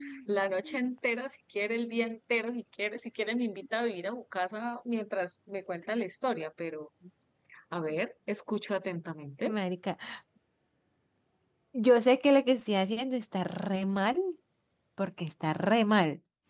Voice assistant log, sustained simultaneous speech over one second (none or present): none